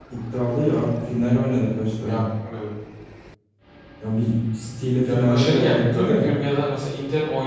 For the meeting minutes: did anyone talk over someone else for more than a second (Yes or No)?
Yes